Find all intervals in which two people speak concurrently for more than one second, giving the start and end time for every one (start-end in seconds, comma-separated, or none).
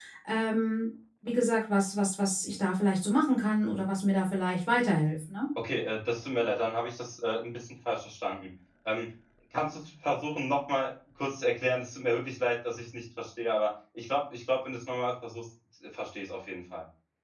none